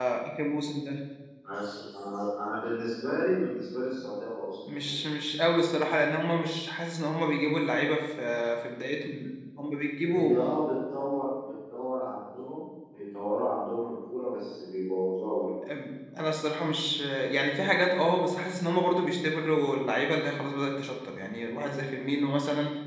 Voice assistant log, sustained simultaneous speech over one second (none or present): none